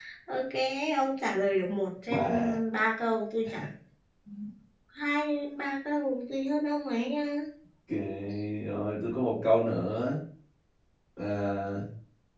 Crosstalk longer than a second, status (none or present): none